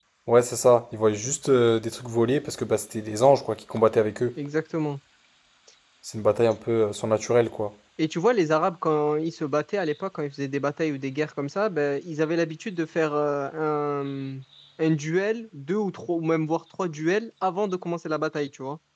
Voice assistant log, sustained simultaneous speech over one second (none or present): none